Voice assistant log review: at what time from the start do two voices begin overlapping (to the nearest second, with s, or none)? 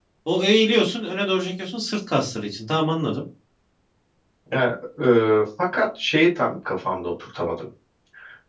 none